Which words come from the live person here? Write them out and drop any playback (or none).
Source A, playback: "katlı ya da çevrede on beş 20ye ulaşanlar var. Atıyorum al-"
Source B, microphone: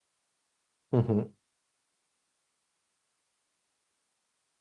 Hı hı.